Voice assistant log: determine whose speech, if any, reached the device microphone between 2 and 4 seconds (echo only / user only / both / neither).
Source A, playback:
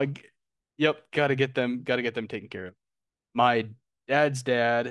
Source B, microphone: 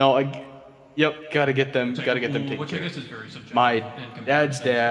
both